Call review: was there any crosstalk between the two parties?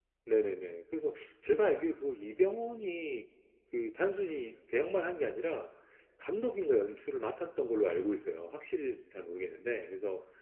No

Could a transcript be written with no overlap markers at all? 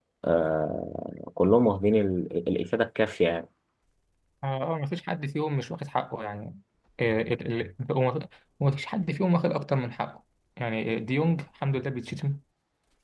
Yes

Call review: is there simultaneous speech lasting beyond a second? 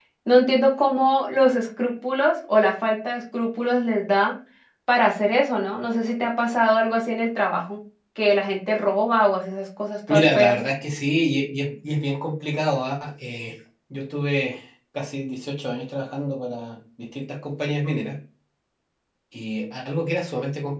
No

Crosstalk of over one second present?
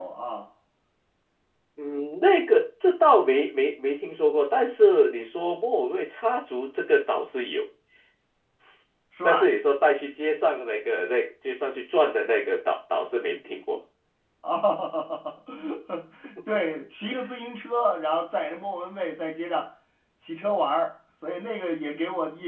No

